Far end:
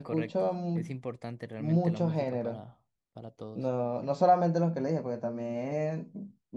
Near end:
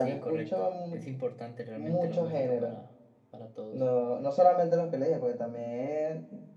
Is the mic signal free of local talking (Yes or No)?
Yes